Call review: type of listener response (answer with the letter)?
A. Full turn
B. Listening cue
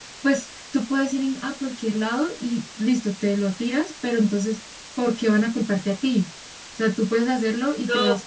A